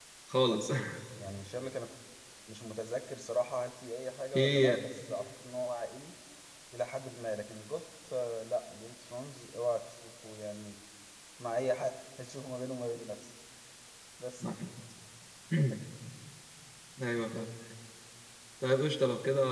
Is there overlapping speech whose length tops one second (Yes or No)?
No